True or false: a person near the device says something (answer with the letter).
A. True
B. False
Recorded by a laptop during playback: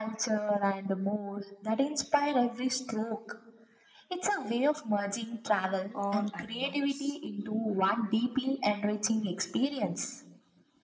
A